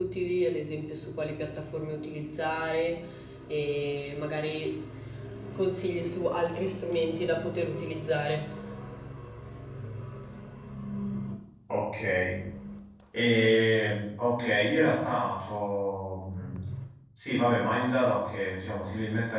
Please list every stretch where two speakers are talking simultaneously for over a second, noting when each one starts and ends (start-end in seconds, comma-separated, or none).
none